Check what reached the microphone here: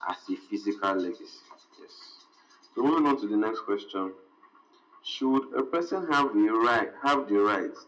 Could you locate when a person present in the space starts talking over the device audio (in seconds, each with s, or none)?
none